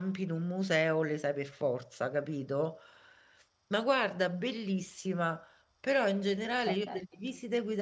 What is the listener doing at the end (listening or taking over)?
listening